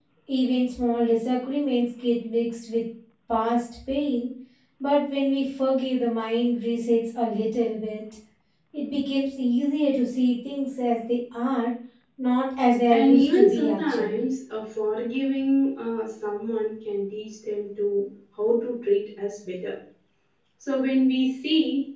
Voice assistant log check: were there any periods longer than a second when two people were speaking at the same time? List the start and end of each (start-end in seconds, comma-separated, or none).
12.9-14.2